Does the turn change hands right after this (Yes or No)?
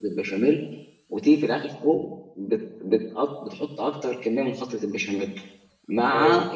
No